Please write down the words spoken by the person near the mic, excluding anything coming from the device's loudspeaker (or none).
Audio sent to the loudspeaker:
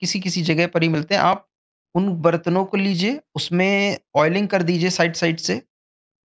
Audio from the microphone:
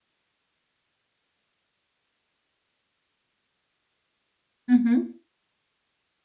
हम्म